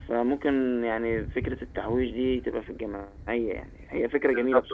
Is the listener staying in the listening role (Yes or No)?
No